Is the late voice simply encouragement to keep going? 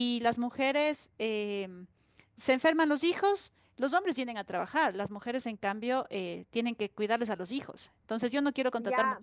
No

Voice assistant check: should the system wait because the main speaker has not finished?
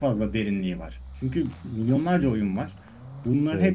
Yes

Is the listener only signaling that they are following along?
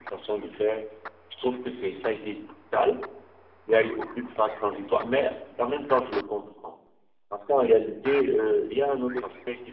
Yes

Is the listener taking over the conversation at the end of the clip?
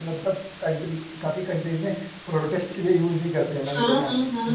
Yes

